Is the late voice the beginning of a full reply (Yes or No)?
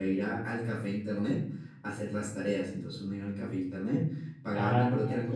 Yes